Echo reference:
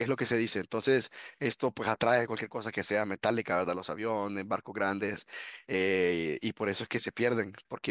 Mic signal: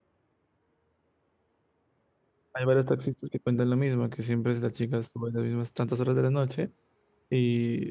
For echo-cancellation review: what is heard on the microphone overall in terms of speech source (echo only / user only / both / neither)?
user only